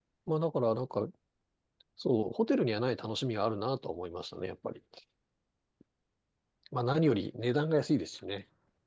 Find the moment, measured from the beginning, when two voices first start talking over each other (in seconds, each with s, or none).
none